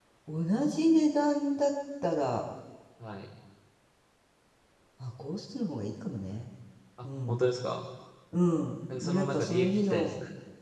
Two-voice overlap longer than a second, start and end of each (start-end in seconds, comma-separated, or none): 8.9-10.1